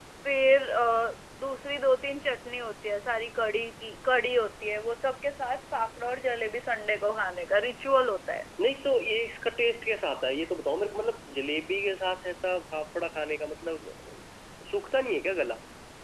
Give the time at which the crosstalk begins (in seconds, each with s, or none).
none